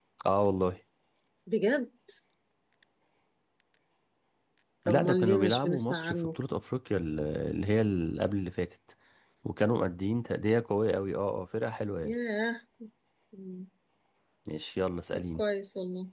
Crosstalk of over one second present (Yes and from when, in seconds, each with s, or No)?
Yes, from 4.9 s